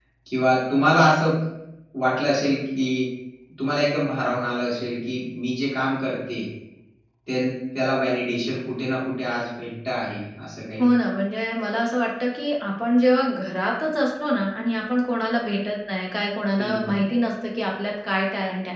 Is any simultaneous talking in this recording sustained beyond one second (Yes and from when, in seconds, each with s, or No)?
No